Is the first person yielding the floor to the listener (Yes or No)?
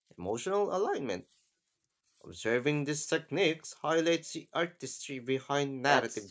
Yes